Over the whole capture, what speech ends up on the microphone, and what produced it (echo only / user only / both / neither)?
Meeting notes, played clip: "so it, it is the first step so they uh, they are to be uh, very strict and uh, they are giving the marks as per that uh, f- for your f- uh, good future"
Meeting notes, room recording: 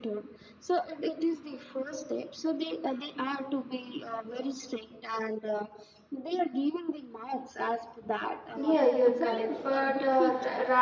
both